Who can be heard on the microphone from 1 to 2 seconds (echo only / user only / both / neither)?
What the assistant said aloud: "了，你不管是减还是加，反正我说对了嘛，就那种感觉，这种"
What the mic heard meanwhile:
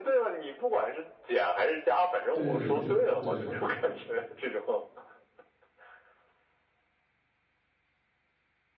echo only